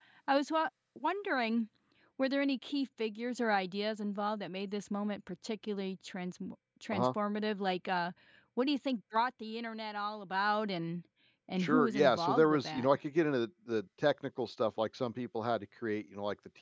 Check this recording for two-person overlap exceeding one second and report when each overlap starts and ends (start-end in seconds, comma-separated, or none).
11.6-12.9